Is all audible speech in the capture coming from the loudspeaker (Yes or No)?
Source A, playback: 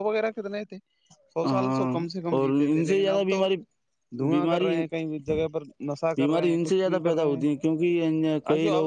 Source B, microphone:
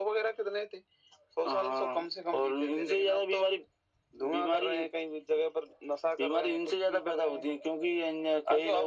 Yes